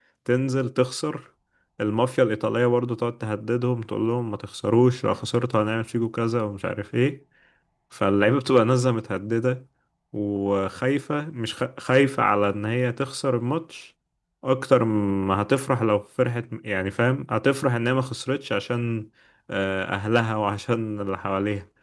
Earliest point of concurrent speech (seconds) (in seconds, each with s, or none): none